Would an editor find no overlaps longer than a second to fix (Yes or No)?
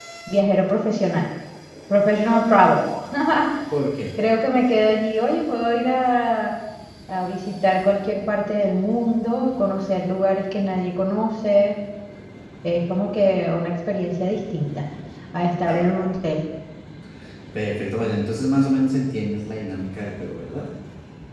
Yes